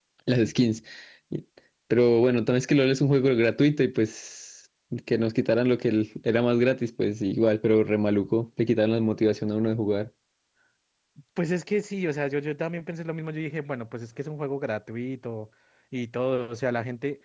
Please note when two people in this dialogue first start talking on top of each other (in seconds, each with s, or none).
none